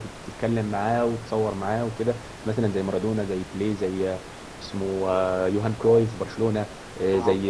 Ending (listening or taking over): listening